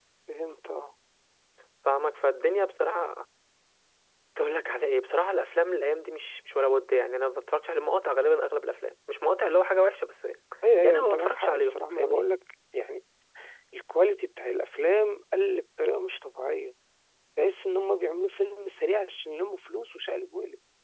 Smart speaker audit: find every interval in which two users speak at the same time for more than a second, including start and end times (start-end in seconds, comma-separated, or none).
11.0-12.2